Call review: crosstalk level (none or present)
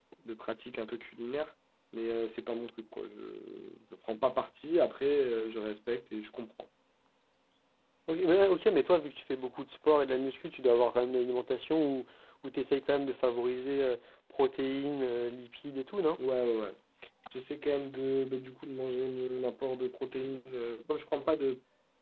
none